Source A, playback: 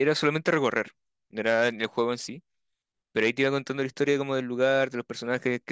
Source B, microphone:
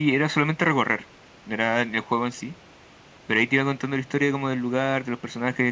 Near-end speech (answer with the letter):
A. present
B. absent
B